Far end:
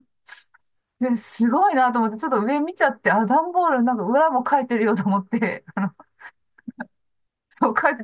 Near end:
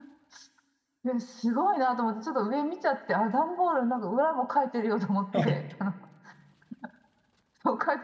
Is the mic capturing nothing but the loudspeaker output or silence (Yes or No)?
No